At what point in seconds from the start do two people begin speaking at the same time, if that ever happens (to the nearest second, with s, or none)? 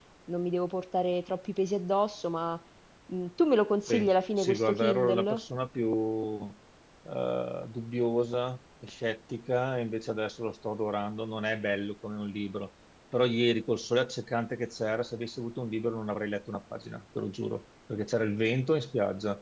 4 s